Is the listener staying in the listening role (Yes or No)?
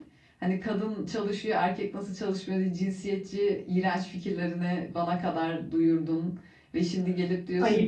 Yes